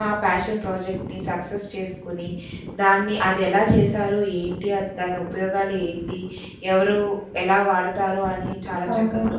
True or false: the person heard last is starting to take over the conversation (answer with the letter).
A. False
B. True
A